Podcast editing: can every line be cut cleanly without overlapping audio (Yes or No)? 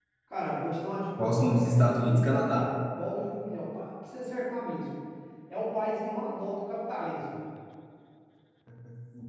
No